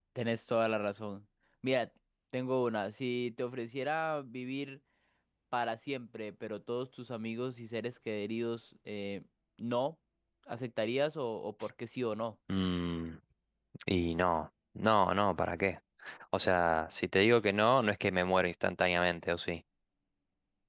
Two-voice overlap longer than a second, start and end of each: none

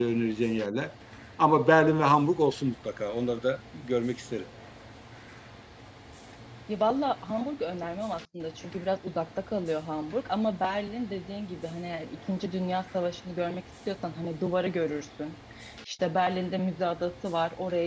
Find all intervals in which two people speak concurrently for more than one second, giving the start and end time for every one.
none

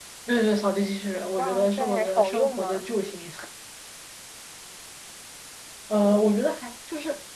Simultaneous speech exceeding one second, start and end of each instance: 1.4-2.8

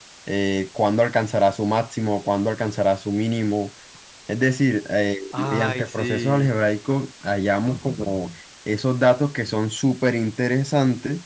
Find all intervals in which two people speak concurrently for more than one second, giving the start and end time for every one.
5.3-6.5

